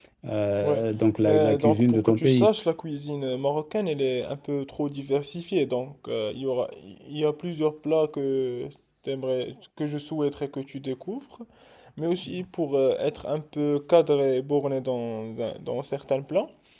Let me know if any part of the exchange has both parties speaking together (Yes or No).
Yes